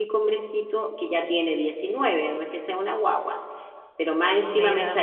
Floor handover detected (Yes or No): No